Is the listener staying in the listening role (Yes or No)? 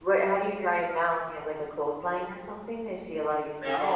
No